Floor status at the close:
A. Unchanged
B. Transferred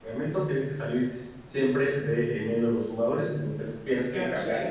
B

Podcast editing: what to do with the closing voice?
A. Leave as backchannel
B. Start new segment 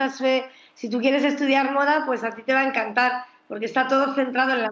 A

